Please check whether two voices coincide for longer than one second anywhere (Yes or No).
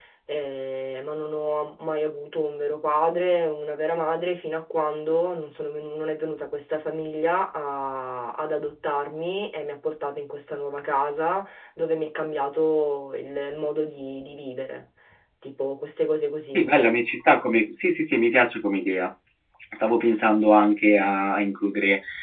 No